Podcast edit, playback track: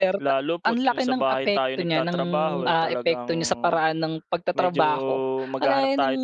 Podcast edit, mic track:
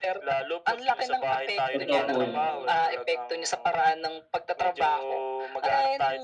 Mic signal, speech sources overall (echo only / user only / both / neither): both